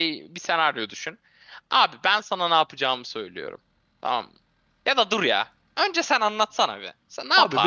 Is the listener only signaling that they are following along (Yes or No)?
No